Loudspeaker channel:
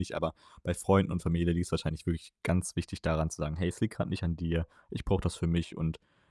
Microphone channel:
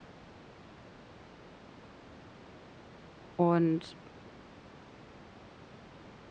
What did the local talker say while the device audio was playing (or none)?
und